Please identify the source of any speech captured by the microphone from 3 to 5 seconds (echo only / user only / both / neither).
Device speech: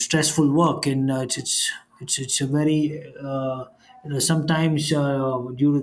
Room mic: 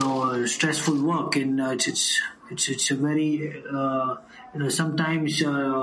echo only